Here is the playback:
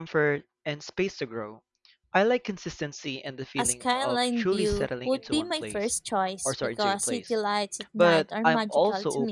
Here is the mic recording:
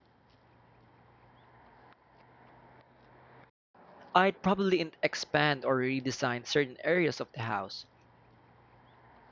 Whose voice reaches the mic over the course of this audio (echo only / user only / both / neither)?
user only